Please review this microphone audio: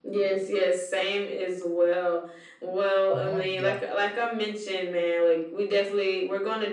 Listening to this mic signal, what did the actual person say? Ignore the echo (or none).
uh-huh. Yeah,